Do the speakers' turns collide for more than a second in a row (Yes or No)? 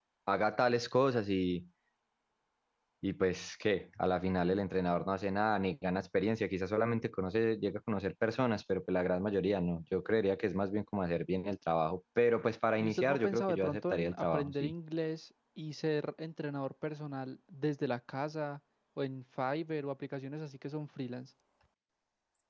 Yes